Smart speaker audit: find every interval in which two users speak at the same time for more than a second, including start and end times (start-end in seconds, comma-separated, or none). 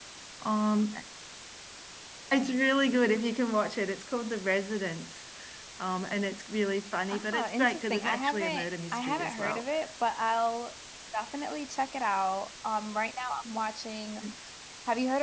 7.1-9.6